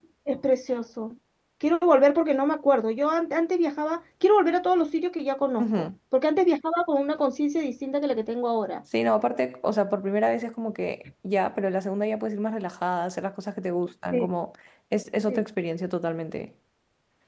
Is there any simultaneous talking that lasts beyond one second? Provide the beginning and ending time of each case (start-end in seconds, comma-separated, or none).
none